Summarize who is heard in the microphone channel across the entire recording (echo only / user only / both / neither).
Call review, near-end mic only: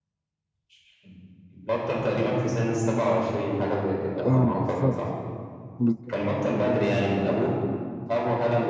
both